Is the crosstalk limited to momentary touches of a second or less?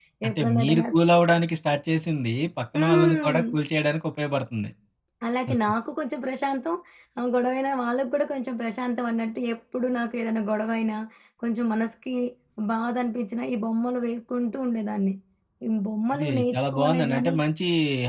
No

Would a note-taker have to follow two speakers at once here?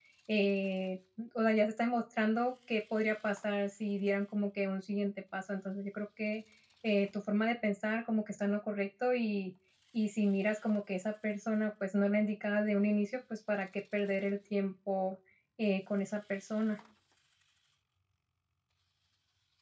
No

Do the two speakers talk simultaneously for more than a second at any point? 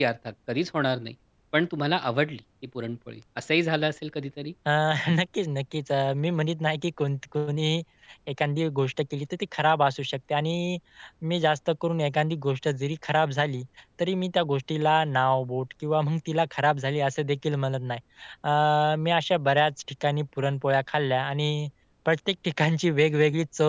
No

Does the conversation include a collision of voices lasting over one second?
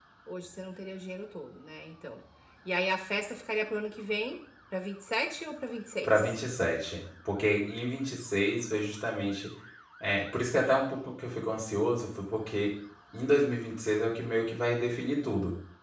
No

